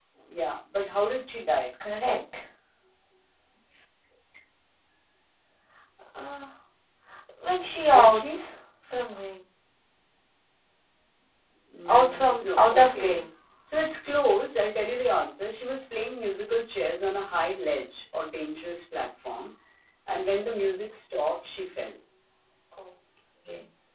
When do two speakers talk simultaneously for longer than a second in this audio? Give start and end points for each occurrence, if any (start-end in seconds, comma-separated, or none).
11.9-13.2